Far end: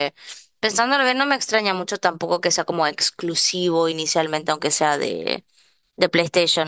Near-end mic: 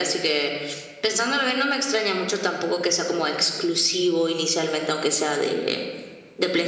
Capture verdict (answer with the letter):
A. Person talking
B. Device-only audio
B